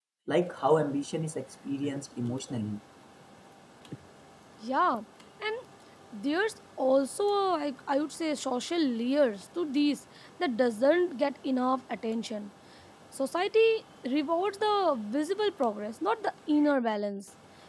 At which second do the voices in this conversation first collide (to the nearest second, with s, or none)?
none